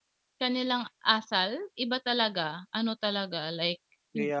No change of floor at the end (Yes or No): Yes